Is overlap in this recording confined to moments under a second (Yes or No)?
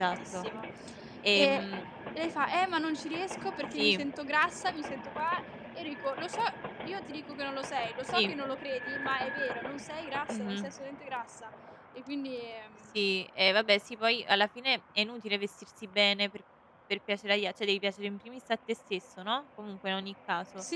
Yes